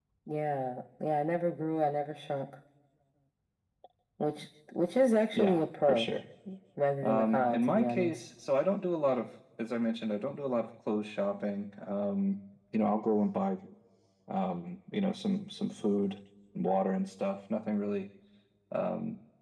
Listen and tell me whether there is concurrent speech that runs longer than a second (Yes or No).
Yes